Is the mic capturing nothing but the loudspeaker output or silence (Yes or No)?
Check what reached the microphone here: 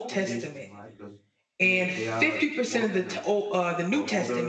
No